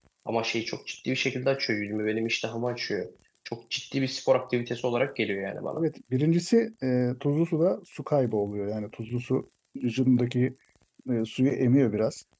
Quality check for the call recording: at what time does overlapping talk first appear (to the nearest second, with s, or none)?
none